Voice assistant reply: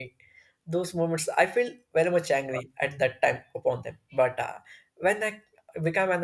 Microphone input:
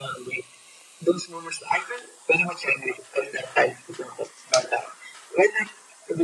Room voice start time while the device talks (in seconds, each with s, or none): none